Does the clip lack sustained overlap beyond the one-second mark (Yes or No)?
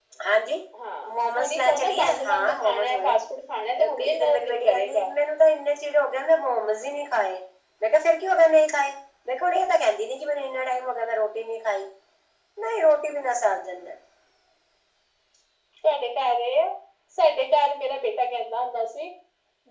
No